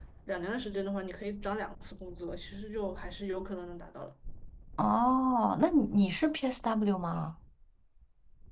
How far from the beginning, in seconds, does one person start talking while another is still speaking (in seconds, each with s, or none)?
none